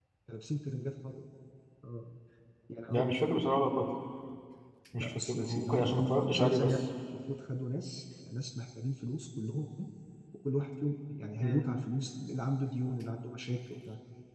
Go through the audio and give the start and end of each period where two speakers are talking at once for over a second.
5.0-6.8

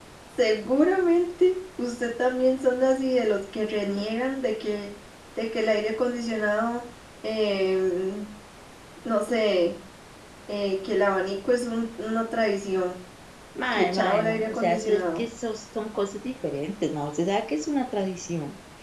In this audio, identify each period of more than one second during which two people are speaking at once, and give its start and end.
13.7-15.2

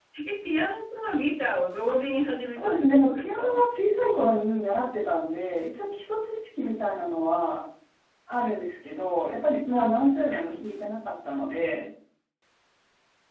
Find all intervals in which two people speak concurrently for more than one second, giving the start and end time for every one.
1.9-3.6

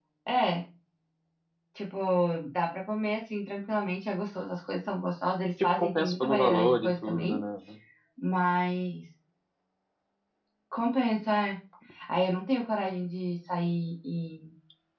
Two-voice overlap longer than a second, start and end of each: 5.6-7.4

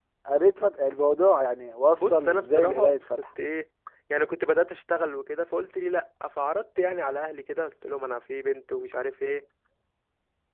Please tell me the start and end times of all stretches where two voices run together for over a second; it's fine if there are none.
1.9-3.2

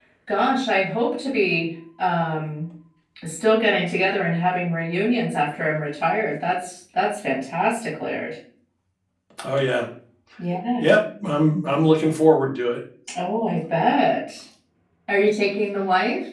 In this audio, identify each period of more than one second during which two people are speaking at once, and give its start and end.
none

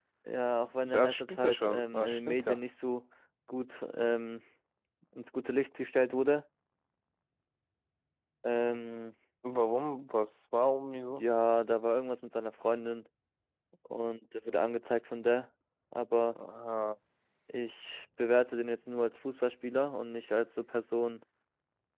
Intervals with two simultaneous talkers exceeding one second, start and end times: 0.8-2.6

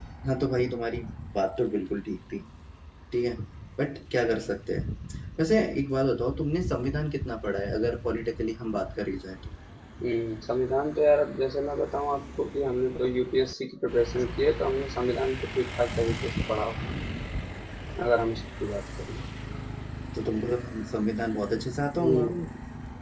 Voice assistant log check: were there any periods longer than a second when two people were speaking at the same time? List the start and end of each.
none

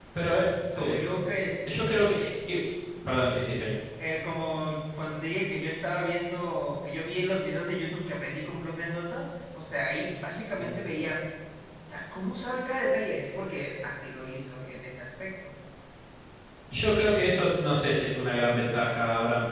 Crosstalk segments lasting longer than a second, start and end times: none

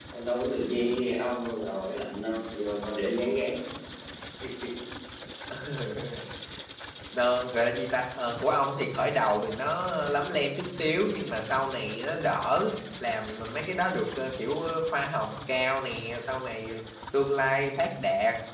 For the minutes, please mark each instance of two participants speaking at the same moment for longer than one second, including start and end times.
none

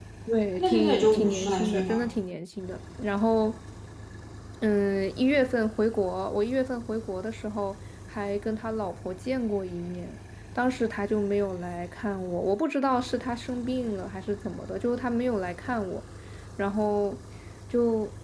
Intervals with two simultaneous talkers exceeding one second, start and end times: 0.6-2.0

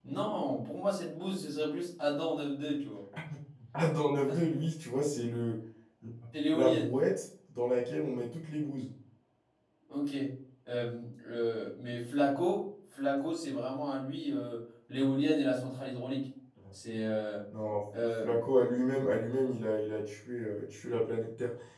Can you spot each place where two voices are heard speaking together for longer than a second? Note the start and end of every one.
none

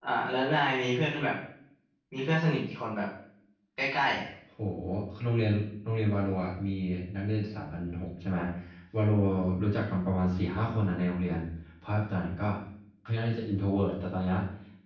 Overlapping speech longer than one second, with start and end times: none

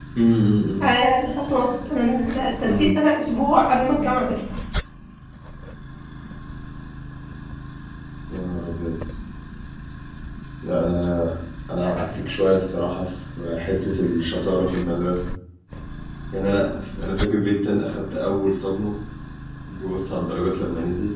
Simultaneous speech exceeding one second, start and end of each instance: none

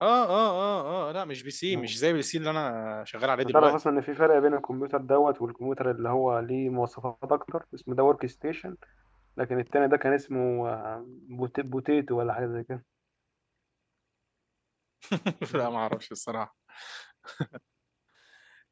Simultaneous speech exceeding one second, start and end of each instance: none

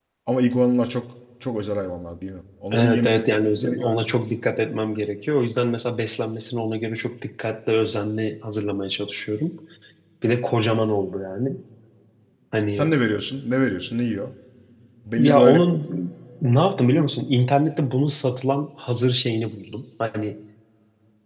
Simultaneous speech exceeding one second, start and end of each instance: 2.7-4.0

